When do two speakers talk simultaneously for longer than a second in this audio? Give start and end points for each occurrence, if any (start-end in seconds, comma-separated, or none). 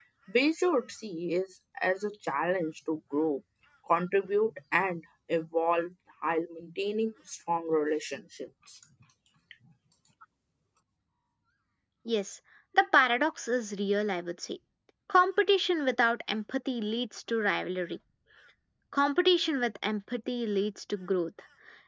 none